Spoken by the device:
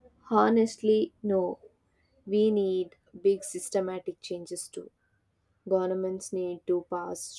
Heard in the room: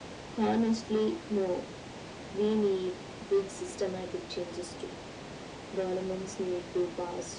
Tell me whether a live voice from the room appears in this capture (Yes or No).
No